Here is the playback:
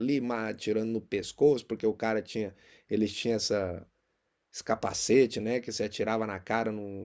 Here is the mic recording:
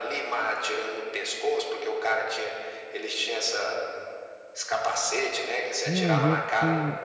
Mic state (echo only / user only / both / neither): both